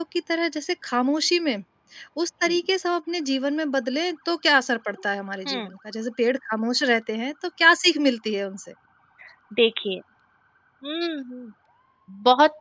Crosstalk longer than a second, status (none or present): none